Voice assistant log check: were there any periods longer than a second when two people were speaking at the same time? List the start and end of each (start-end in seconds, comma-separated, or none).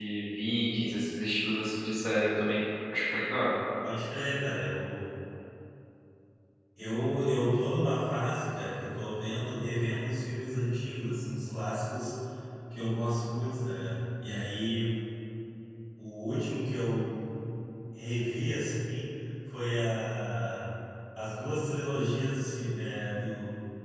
none